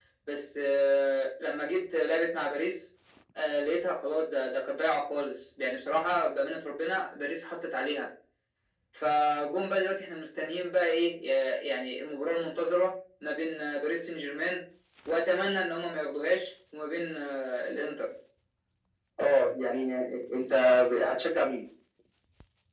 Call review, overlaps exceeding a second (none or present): none